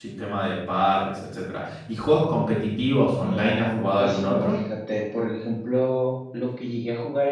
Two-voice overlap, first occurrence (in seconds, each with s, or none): 3.2 s